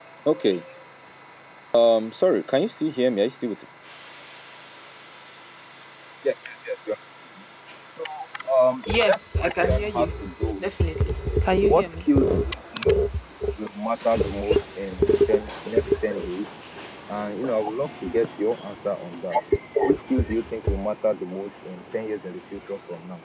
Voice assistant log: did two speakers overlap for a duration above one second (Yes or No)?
Yes